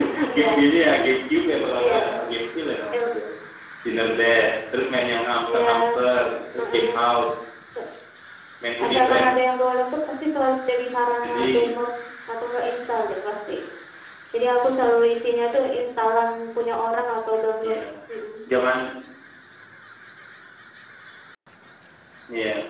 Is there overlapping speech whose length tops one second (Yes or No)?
No